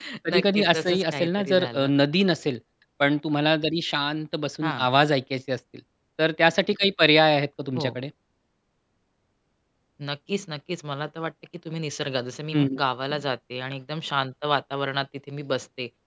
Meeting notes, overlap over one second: present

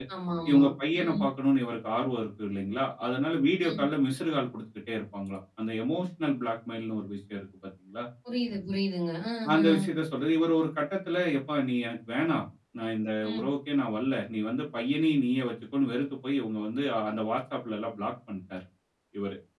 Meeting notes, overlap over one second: none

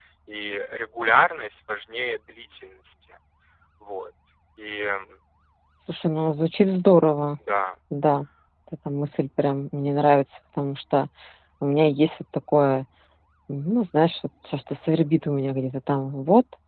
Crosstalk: none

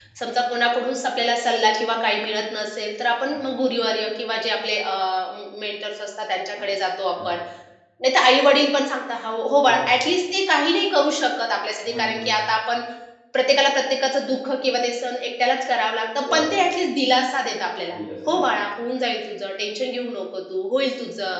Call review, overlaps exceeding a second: none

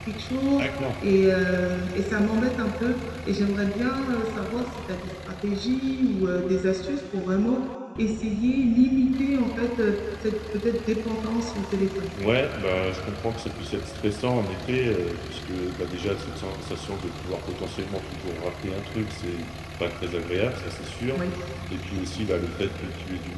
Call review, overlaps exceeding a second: none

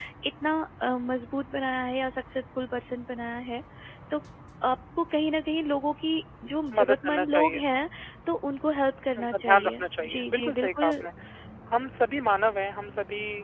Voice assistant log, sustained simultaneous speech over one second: present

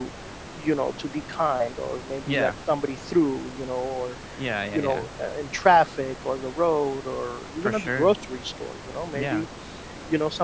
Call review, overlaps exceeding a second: none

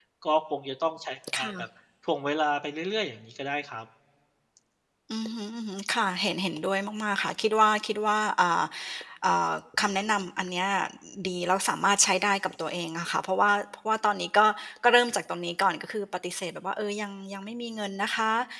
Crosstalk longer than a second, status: none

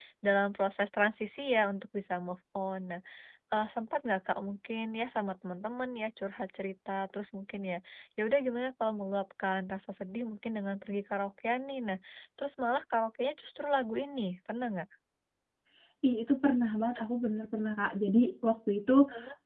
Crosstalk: none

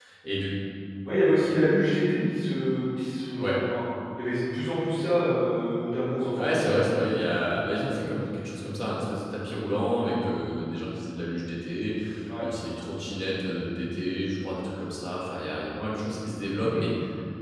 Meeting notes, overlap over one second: none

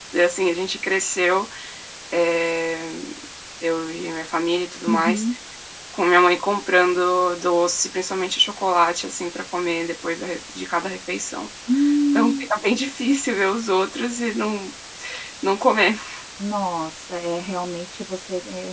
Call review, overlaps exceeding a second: none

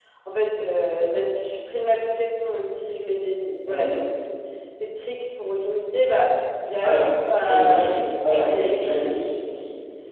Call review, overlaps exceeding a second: present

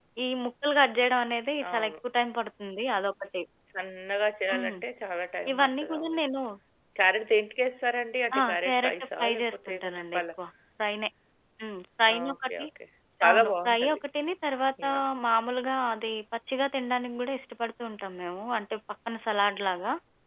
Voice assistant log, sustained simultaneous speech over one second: present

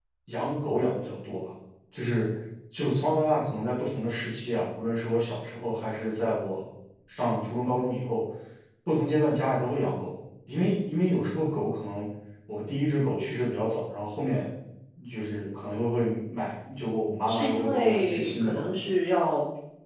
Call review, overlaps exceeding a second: present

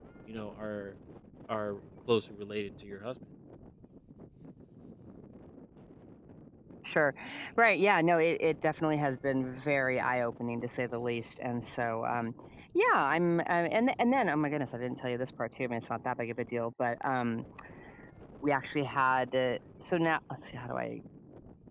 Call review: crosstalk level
none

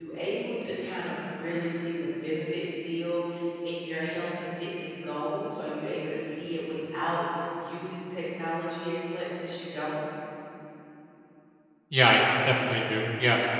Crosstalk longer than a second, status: none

